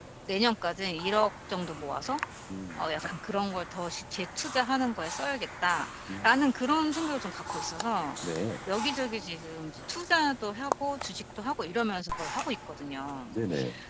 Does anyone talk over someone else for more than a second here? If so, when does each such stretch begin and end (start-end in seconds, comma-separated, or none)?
none